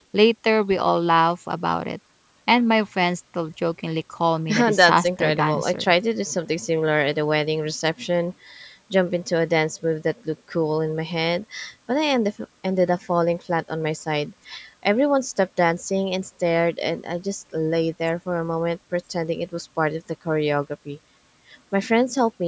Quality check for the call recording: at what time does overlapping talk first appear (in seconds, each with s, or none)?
4.5 s